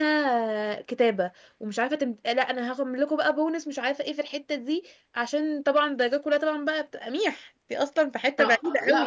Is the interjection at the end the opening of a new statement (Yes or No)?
Yes